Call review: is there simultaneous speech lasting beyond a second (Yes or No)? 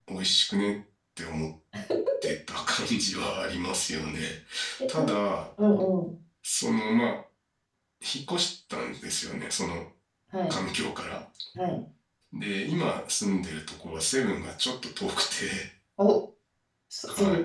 No